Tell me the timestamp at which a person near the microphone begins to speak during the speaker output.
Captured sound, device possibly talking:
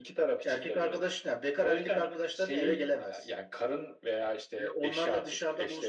none

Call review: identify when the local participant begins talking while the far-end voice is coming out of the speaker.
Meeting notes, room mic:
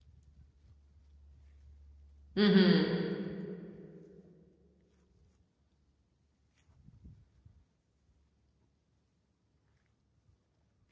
2 s

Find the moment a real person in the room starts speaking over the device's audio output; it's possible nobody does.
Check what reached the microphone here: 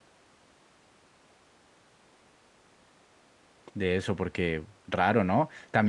4 s

